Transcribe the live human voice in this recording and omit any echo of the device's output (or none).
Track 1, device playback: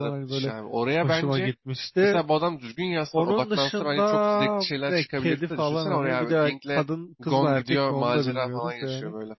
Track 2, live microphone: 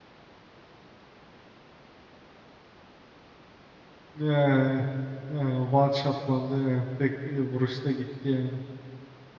Ee, e, one shotlandı yani tek e, vuruşta gitti yani.